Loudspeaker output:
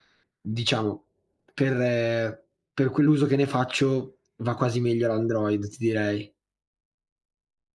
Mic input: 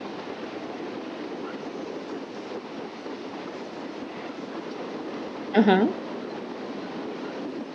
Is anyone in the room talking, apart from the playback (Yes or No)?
Yes